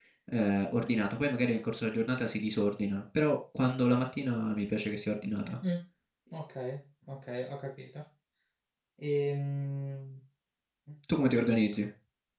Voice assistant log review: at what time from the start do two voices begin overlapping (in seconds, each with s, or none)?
none